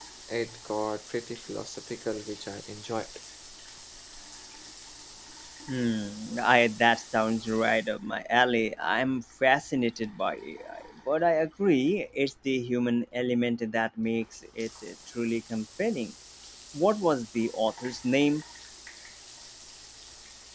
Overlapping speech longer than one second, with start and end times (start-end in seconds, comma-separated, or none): none